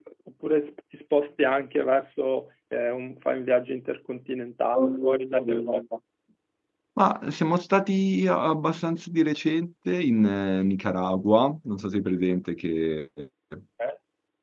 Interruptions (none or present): none